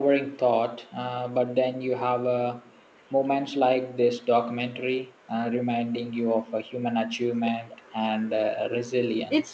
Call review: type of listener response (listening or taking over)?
taking over